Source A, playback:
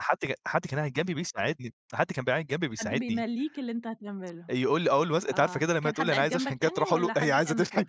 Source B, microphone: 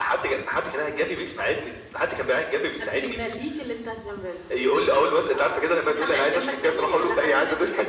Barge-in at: none

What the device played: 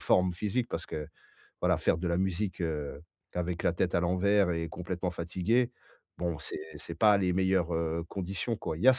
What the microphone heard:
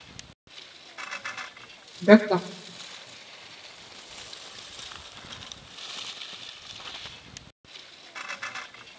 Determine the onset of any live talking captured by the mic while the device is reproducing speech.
2.0 s

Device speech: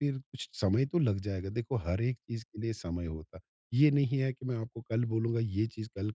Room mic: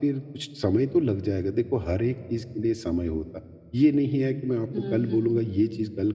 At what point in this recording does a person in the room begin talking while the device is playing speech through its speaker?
4.7 s

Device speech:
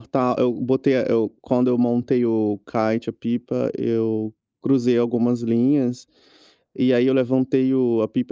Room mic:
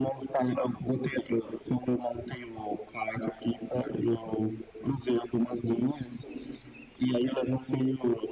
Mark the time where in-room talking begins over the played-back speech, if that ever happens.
none

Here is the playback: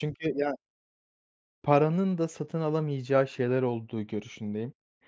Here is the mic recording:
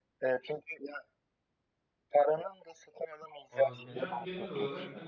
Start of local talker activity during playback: 3.5 s

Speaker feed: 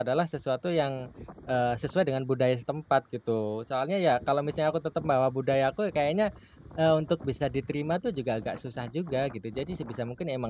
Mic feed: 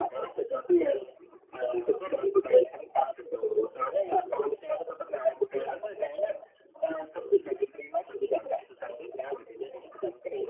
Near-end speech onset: none

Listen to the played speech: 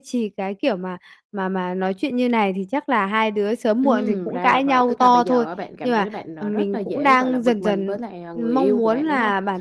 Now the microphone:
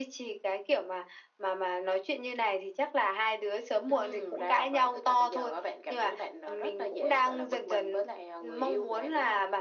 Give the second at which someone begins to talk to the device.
none

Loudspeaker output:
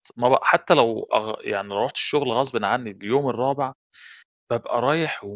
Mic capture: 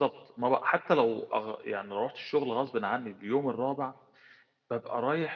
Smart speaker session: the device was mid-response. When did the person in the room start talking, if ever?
none

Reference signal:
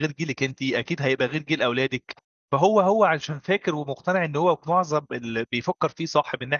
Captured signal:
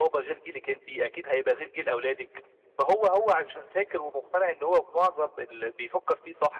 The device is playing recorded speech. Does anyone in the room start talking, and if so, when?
none

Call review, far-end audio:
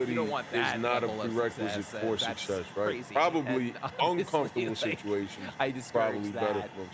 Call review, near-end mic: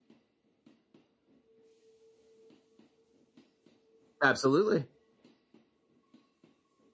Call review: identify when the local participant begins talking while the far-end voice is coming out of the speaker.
4.2 s

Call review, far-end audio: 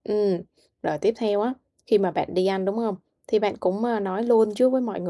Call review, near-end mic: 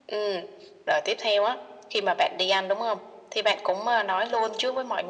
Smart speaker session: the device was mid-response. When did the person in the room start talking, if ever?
none

